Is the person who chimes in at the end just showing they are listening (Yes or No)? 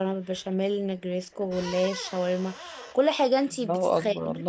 No